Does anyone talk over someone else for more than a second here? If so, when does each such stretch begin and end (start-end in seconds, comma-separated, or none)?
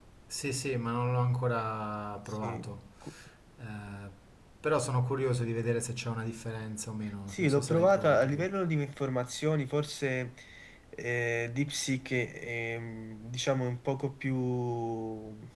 7.3-8.5